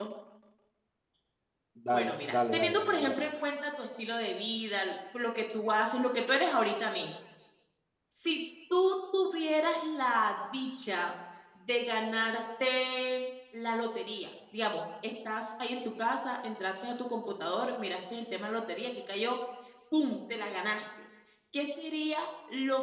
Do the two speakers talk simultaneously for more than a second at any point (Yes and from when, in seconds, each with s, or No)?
Yes, from 1.9 s